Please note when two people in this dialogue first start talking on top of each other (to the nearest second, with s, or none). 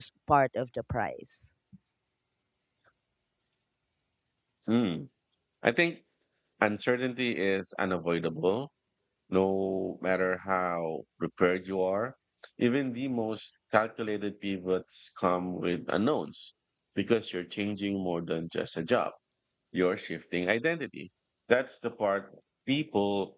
none